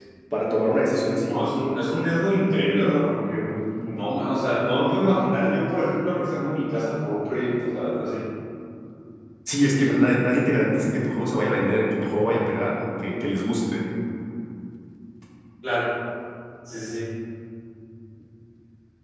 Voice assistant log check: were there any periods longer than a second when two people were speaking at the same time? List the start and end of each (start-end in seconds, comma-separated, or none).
none